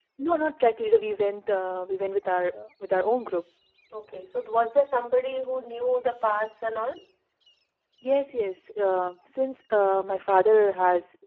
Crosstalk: none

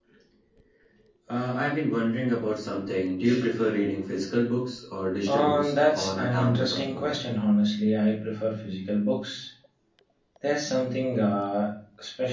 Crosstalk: present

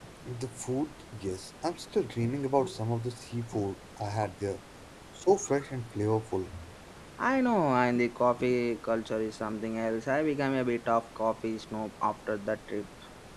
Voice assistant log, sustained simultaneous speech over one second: none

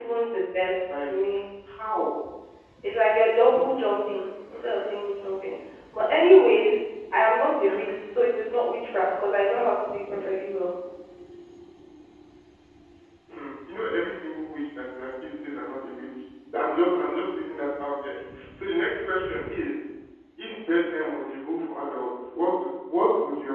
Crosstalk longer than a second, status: none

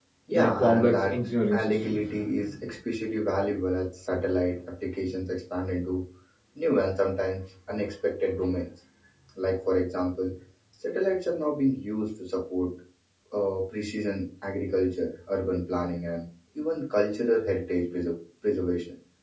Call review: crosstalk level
present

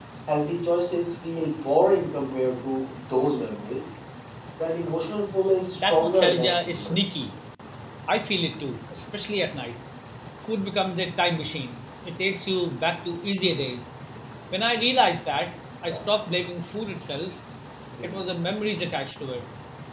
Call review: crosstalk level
present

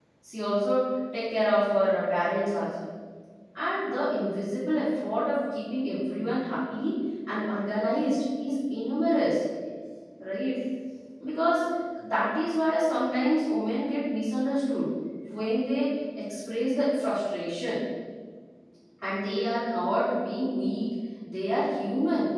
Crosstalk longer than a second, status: none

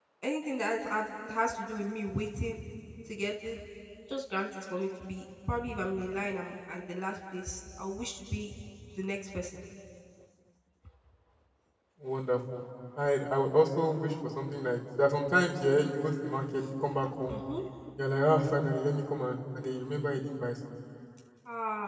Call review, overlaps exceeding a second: none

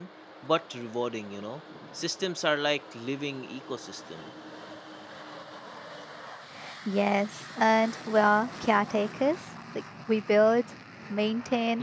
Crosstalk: none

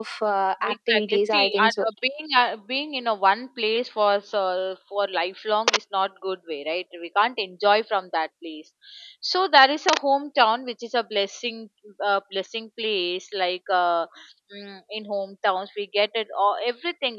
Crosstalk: present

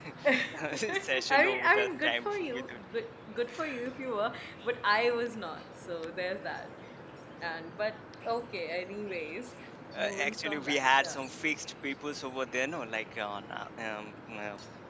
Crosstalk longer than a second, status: present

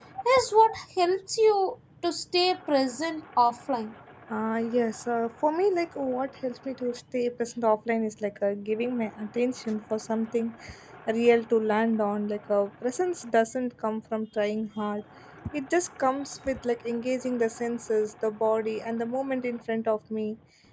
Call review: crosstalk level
none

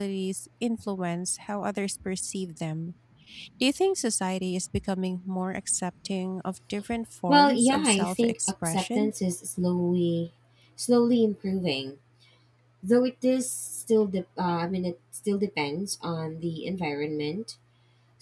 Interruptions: present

